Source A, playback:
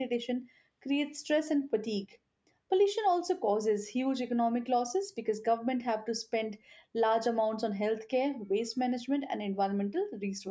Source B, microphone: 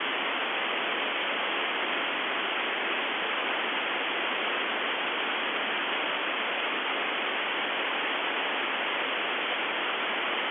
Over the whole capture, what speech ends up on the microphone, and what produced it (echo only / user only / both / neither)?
neither